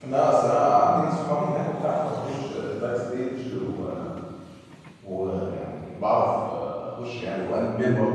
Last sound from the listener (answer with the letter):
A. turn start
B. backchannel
A